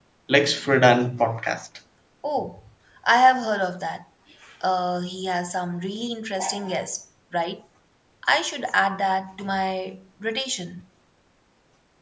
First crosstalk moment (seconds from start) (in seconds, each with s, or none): none